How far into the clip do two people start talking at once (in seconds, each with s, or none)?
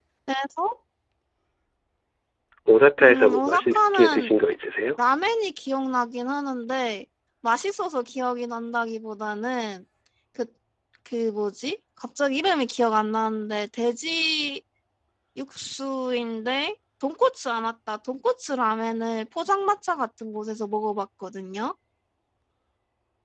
3.0 s